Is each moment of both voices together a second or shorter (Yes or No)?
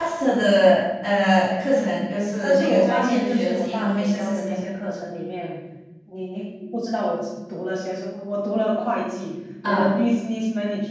No